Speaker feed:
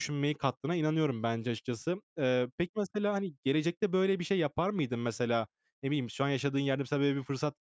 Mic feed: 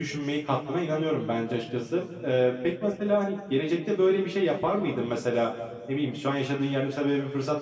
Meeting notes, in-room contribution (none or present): none